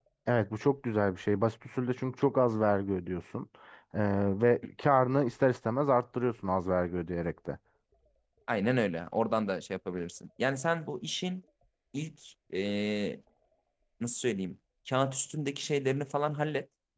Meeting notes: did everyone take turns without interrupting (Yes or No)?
Yes